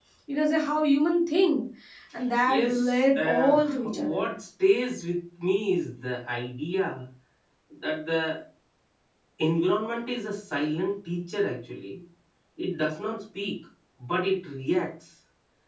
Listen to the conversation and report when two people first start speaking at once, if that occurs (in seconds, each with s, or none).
2.5 s